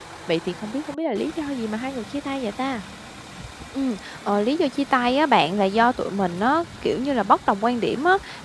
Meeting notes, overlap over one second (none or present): none